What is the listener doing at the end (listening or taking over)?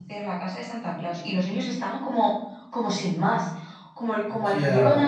listening